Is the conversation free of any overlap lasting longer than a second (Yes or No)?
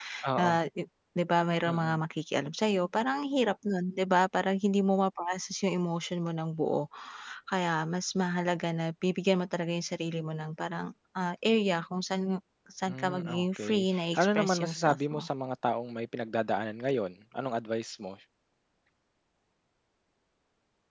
No